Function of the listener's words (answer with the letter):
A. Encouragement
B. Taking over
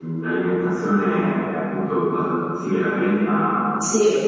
B